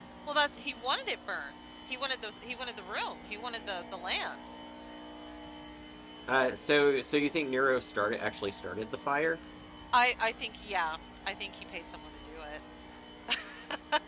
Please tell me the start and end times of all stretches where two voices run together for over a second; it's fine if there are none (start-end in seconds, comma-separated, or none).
none